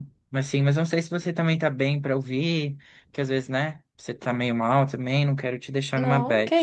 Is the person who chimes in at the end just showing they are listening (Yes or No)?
No